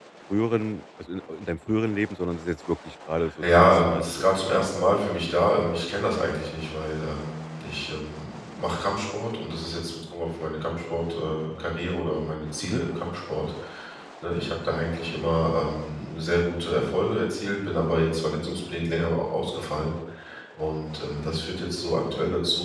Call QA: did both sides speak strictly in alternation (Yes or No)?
No